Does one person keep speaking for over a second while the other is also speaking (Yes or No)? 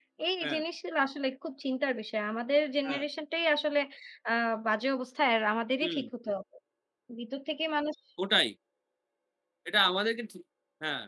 No